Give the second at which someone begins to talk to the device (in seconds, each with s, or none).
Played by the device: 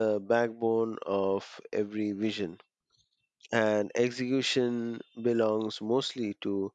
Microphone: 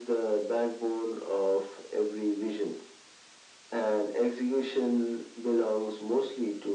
none